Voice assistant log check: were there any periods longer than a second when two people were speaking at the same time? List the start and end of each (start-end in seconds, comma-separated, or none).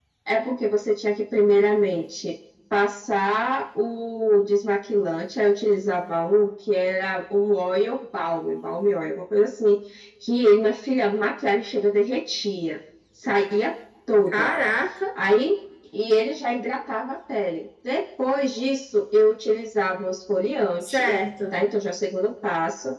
none